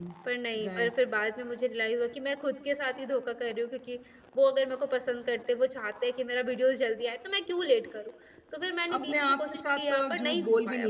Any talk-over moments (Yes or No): Yes